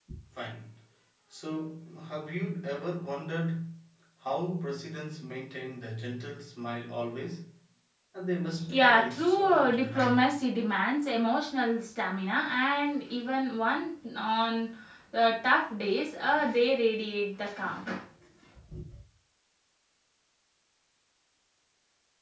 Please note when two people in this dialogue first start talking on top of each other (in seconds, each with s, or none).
8.7 s